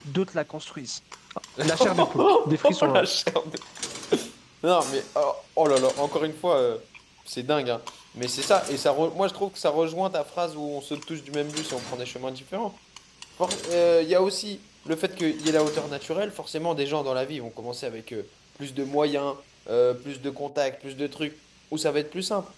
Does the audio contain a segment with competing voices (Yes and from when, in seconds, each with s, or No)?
Yes, from 1.8 s